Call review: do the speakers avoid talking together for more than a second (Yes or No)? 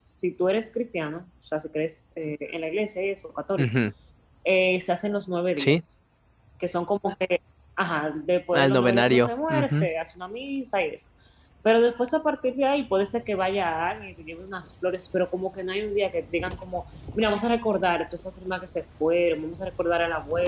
No